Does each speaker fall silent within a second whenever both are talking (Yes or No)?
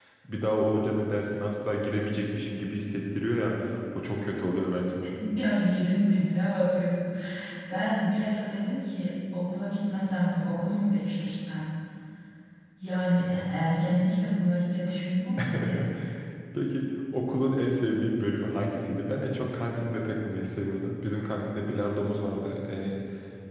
Yes